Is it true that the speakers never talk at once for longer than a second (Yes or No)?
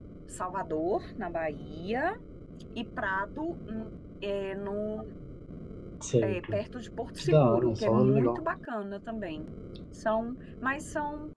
No